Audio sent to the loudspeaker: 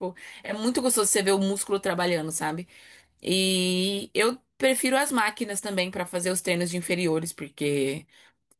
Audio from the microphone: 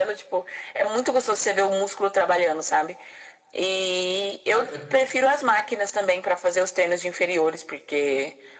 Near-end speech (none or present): present